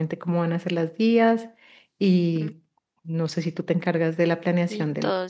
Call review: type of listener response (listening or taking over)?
taking over